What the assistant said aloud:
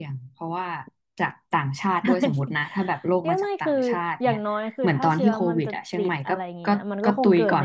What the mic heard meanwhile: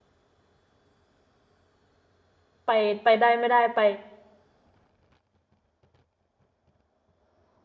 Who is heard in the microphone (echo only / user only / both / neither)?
user only